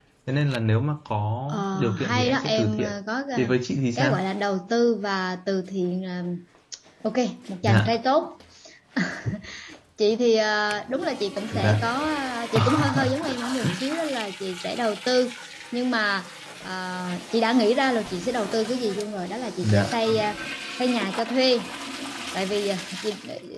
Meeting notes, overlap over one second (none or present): present